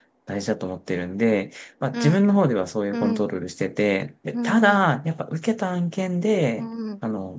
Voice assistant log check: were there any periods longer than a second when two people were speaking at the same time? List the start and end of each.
none

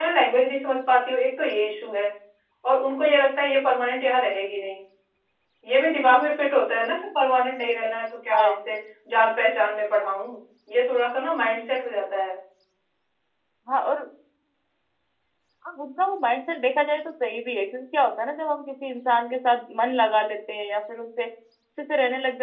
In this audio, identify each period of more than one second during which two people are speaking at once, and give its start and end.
none

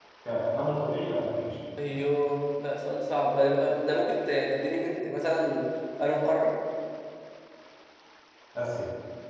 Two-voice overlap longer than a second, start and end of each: none

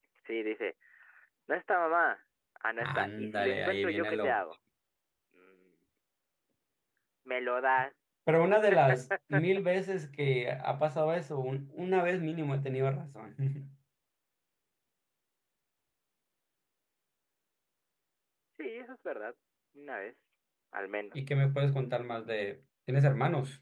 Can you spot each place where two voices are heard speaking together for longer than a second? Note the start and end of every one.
2.8-4.3

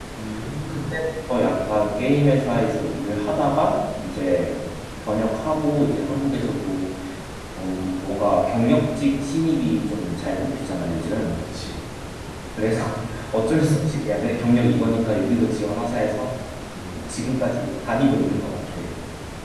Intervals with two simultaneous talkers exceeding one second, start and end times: none

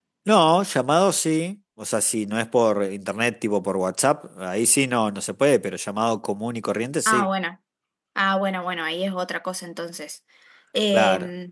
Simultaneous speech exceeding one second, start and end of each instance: none

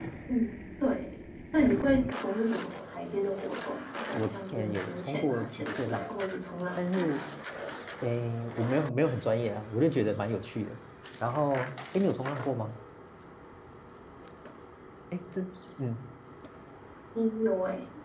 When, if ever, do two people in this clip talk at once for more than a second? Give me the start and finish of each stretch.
4.1-6.1

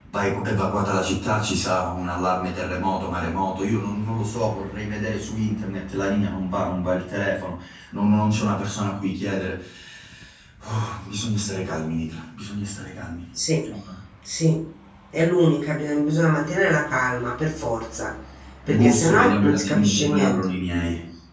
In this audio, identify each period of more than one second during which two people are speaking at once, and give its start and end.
18.8-20.4

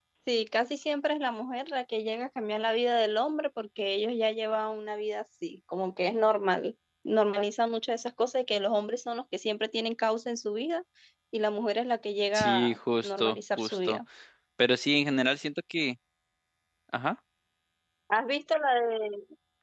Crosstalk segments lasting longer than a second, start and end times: 12.3-14.0

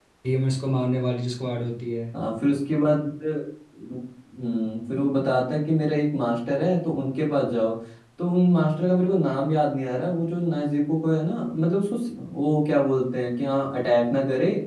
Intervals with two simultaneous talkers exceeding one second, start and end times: none

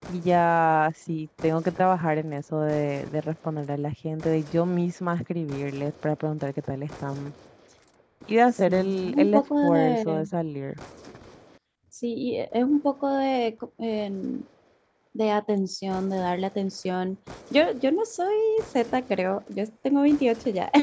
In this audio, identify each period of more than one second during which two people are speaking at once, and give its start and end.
8.7-10.3

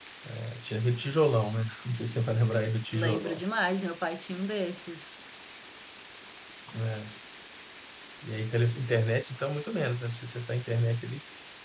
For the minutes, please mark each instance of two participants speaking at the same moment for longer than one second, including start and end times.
none

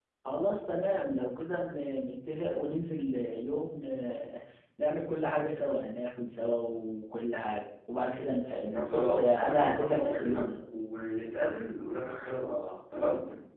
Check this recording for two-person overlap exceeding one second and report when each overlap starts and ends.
8.7-10.5

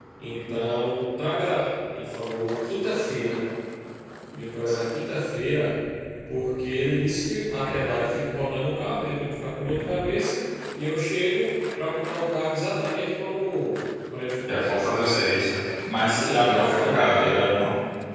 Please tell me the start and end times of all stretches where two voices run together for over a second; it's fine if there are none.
15.9-17.4

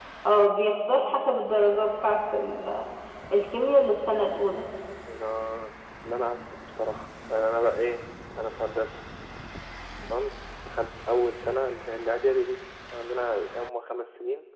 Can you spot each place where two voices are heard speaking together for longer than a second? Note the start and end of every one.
none

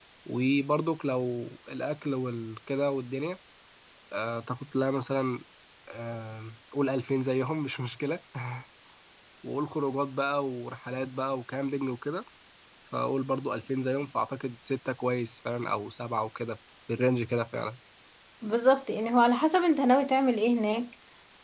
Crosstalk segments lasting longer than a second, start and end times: none

